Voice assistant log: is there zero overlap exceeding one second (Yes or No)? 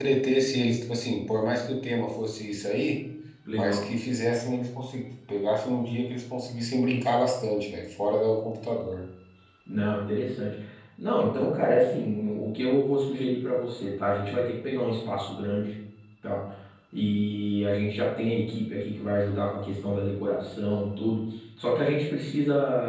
Yes